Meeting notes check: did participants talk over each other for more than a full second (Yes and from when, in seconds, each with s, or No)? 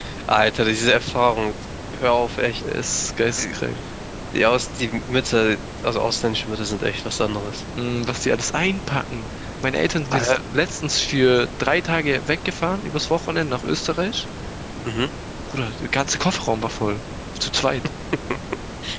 No